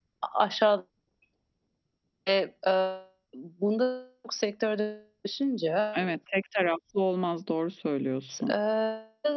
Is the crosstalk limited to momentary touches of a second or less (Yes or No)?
Yes